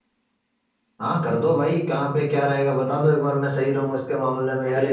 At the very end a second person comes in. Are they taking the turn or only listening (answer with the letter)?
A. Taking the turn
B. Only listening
A